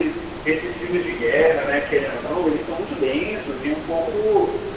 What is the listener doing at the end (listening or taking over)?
listening